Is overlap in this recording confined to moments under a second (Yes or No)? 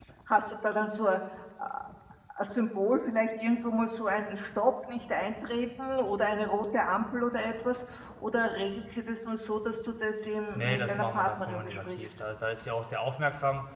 No